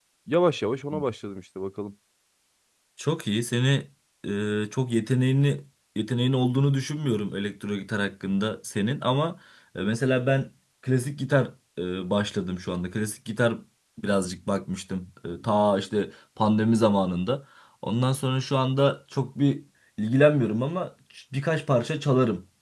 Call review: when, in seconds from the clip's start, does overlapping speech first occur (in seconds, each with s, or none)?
none